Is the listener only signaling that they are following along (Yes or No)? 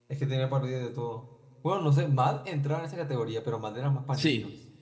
No